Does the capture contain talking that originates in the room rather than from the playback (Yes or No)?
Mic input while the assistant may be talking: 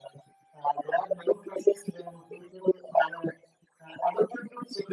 No